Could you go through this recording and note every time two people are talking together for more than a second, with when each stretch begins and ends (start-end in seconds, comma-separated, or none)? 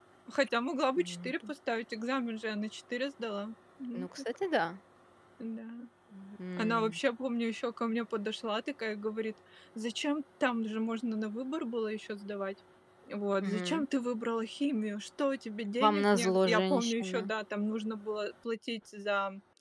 15.8-17.3